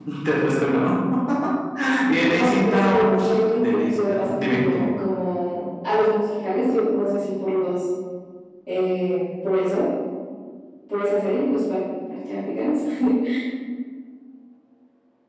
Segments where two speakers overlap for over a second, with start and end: 2.3-4.8

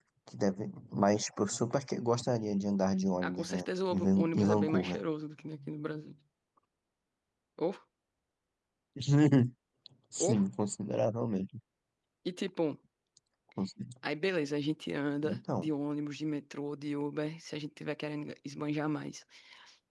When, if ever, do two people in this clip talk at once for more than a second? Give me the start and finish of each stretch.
3.2-5.0

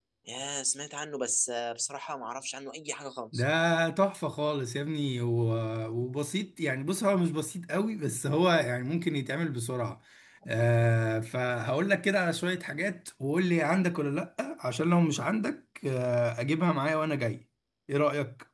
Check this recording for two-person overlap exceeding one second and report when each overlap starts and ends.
none

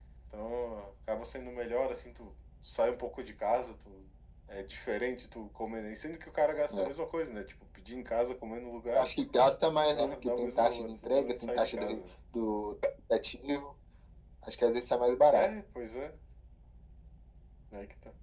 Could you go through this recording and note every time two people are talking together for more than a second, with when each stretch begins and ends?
9.9-12.0

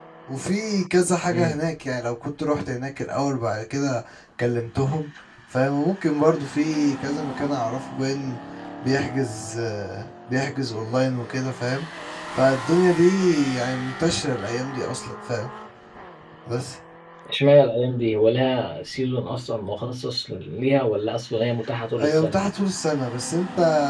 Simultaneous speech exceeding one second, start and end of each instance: none

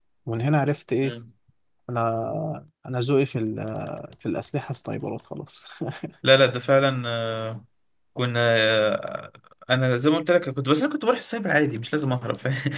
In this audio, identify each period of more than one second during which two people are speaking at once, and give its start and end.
none

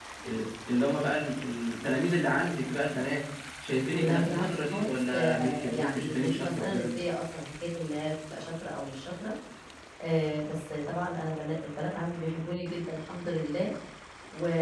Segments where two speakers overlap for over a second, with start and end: 3.9-6.9

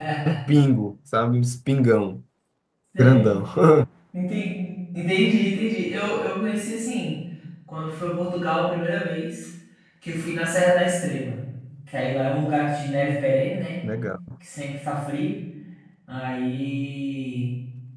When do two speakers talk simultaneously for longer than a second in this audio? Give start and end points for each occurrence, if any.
none

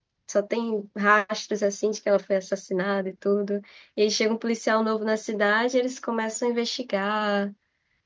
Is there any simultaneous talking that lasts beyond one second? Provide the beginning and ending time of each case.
none

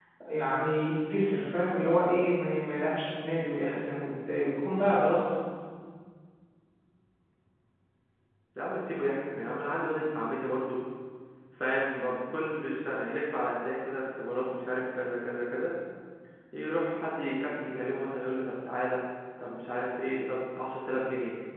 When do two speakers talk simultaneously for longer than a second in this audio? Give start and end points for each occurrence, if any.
none

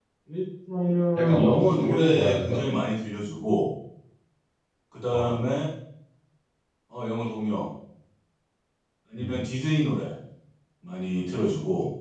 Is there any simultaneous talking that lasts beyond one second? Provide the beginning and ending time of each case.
1.2-2.6

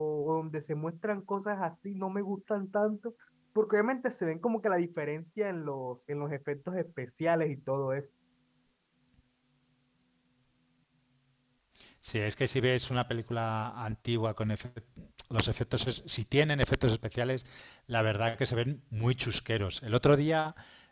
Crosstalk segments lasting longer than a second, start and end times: none

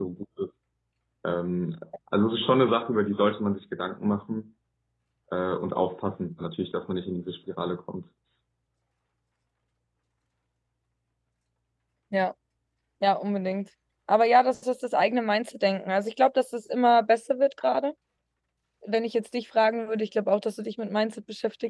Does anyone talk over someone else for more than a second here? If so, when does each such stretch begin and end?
none

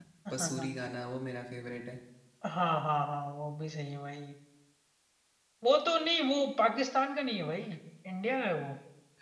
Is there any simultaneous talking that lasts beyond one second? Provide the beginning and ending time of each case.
none

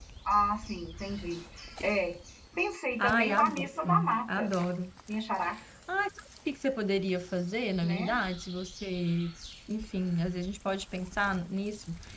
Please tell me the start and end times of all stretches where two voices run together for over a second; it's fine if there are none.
3.0-4.5

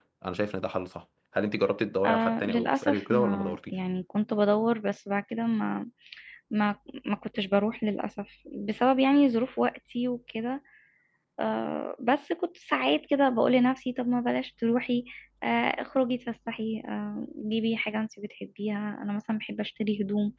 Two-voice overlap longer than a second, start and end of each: 2.1-3.7

